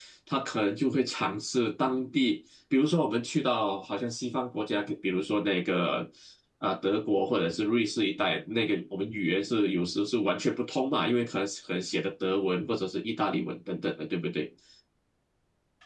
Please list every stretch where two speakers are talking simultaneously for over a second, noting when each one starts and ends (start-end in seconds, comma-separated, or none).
none